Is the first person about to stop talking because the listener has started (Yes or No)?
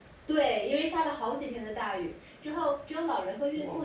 No